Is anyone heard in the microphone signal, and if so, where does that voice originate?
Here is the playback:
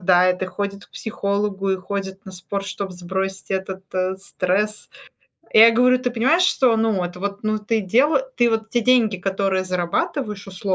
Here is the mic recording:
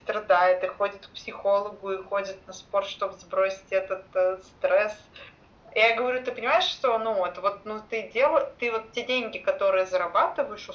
echo only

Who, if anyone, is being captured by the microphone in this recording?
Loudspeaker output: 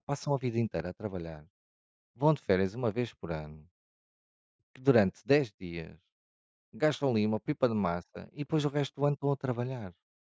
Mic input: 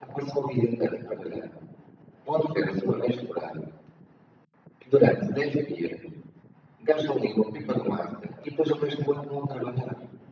echo only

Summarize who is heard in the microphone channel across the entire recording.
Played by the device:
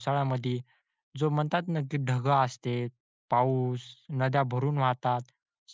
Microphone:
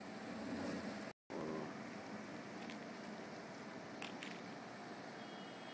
neither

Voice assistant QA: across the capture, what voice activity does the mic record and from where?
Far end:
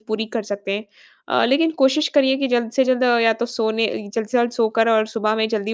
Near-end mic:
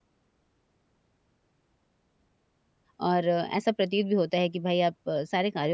user only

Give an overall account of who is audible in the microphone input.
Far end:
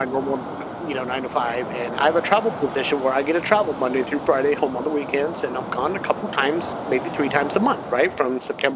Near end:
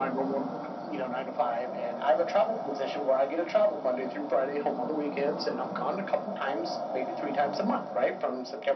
echo only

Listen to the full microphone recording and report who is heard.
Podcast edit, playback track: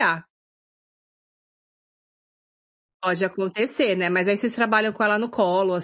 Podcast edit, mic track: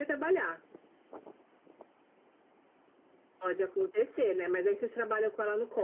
echo only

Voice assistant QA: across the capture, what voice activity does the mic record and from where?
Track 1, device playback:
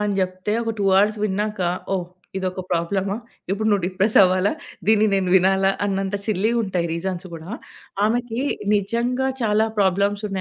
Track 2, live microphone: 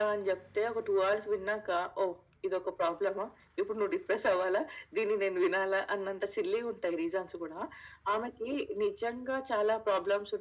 echo only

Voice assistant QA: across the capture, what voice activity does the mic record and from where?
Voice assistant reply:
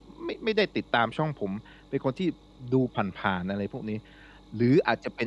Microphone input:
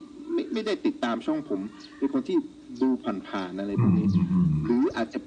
both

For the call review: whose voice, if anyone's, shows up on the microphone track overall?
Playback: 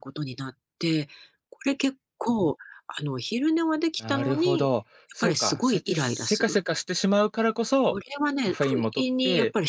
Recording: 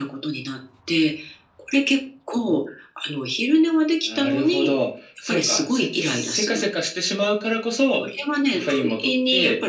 echo only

